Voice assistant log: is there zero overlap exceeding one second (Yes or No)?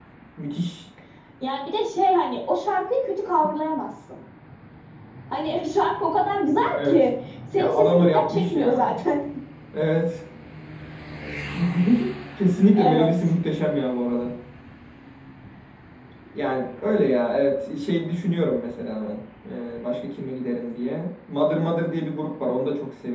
No